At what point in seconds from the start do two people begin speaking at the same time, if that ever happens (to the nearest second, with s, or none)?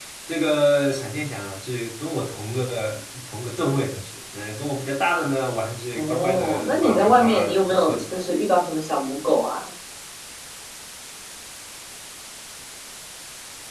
6 s